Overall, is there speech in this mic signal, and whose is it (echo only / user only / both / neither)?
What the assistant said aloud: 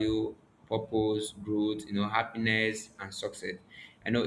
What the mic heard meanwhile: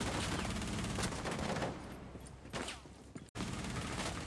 neither